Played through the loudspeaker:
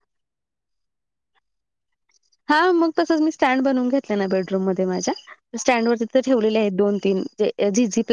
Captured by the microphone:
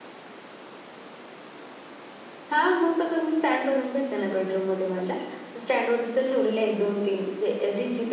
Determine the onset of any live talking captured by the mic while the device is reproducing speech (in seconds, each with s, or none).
none